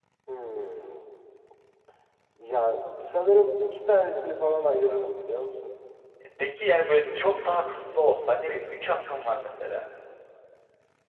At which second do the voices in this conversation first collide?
none

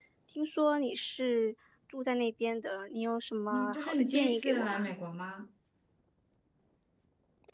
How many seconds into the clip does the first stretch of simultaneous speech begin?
4 s

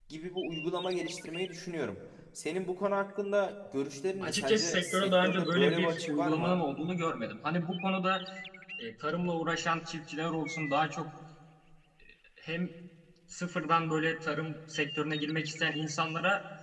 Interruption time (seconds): 4 s

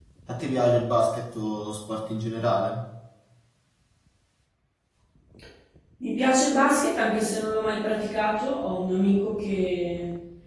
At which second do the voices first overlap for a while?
none

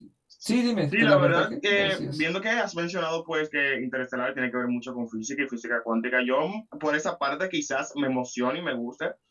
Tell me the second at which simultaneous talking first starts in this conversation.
1 s

